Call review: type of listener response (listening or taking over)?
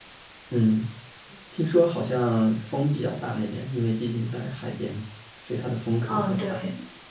taking over